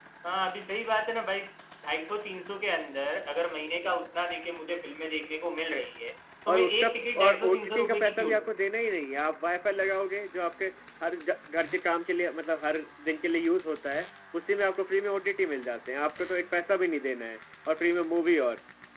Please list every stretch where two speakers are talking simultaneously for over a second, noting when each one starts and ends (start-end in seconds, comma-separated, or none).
6.5-8.5